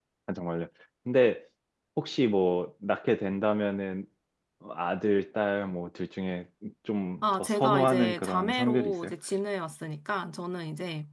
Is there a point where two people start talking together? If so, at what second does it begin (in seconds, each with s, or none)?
7.2 s